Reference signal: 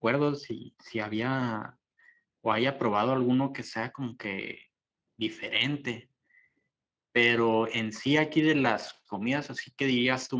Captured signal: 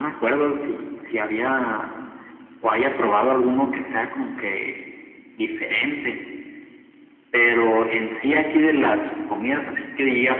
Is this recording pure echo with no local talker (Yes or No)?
Yes